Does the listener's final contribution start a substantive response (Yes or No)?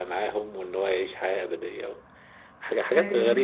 No